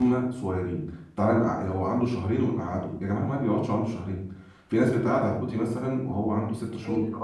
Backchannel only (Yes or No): Yes